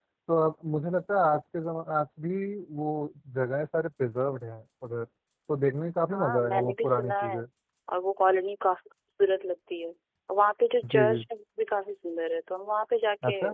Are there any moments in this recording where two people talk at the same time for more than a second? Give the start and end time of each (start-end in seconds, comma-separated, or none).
6.1-7.4